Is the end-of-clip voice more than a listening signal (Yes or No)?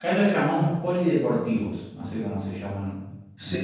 Yes